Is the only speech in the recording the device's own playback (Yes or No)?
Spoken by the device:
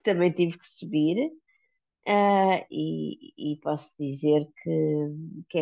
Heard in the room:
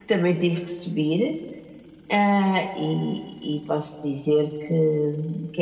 Yes